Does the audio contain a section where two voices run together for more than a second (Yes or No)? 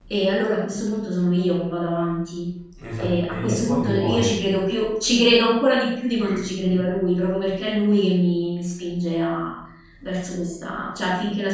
Yes